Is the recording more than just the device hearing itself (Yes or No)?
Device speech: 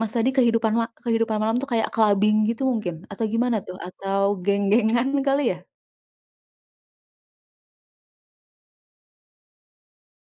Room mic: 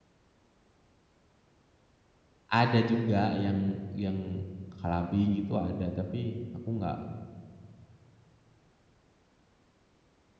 Yes